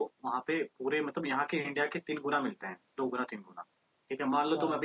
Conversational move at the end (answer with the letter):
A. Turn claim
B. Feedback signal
B